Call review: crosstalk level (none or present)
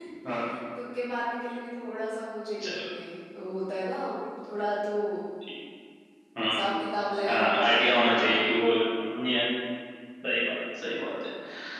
present